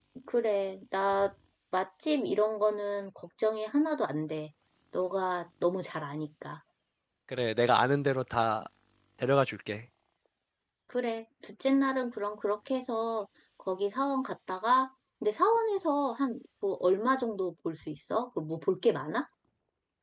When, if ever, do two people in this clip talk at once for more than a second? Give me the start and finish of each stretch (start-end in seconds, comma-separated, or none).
none